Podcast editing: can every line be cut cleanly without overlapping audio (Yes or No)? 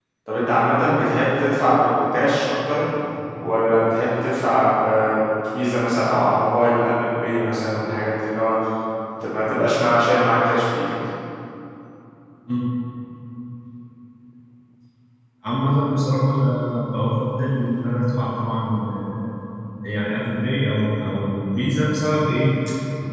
Yes